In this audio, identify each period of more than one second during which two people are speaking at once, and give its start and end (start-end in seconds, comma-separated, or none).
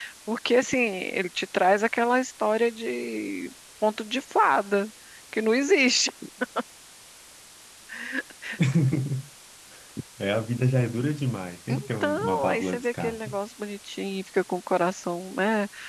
11.7-13.3